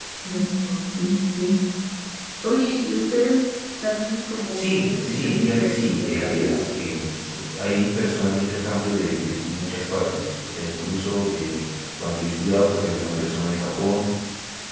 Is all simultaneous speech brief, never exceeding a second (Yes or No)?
No